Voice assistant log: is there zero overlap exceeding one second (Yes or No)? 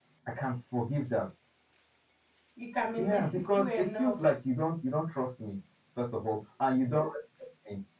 No